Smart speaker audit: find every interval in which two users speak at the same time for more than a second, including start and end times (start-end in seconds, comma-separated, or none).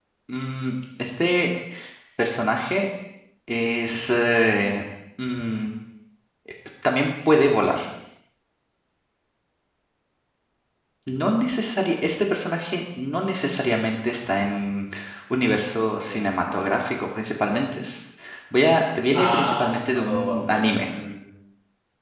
19.1-20.7